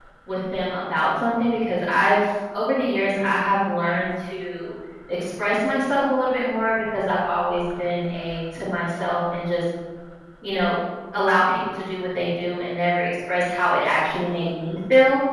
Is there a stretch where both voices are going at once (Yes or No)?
No